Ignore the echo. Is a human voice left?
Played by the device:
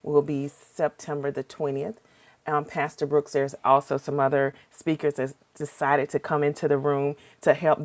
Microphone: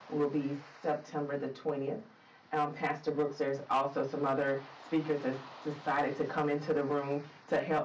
No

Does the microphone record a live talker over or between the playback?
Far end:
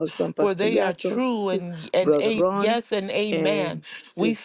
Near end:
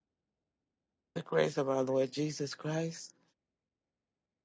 Yes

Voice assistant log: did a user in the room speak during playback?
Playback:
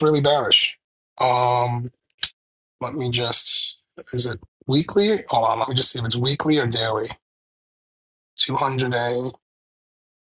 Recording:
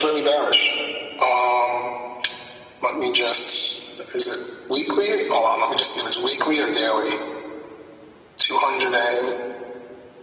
No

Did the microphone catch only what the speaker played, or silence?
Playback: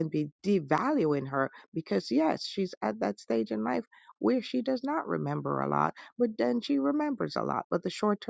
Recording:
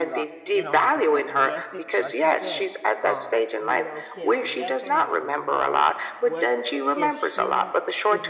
No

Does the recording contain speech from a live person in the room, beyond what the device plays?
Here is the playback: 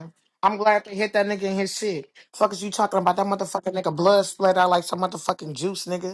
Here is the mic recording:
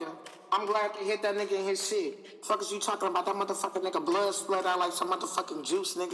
No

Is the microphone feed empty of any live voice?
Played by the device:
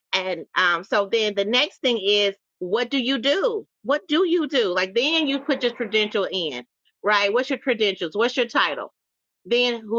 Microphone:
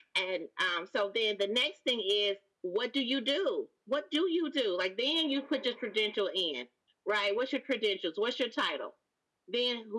Yes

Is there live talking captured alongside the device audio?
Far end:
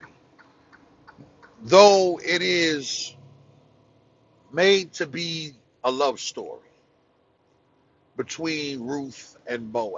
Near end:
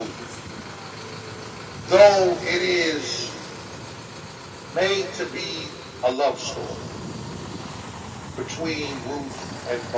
No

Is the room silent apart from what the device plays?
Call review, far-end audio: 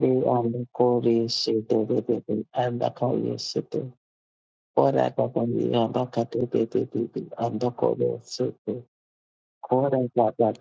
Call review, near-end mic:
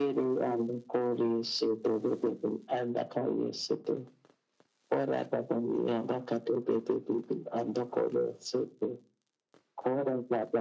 Yes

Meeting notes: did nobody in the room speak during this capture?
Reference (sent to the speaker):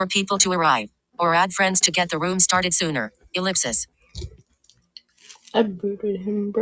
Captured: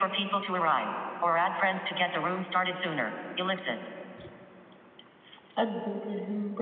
Yes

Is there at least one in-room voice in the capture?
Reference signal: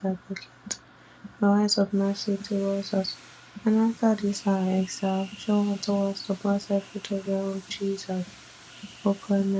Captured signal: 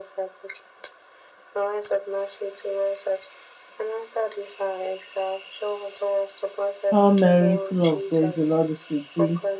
Yes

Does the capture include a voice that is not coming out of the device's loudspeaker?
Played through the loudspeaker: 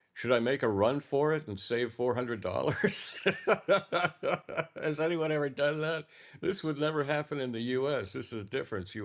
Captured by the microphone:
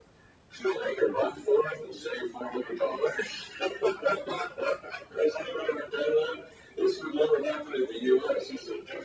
No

